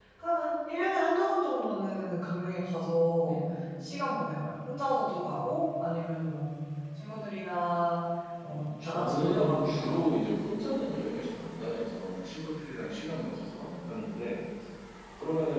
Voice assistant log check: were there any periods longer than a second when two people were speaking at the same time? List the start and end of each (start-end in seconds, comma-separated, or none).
8.5-10.1